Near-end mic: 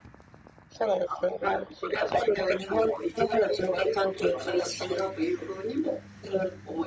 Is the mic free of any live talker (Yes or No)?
Yes